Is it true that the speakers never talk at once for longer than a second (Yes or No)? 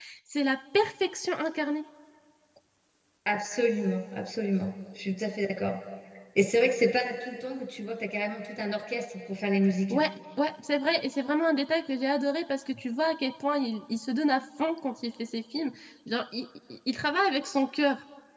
Yes